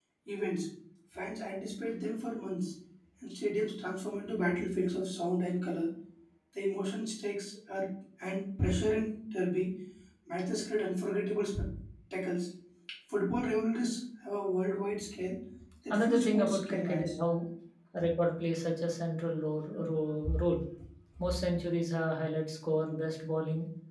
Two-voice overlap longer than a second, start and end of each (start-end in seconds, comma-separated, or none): 15.9-17.1